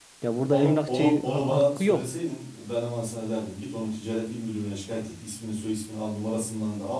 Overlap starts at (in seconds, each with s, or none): 0.5 s